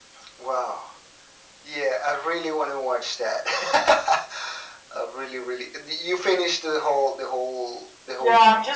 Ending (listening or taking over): taking over